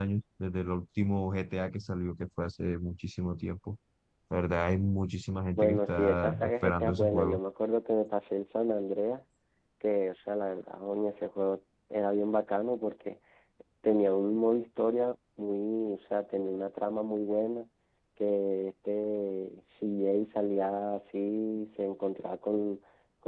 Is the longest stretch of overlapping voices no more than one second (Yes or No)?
No